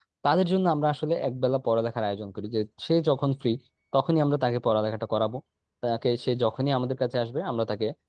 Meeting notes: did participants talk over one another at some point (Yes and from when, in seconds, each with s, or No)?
No